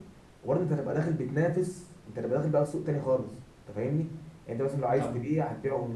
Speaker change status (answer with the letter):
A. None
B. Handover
A